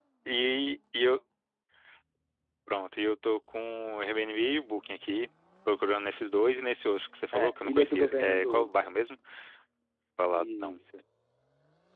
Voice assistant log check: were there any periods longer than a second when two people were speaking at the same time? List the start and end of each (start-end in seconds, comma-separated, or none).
7.3-8.7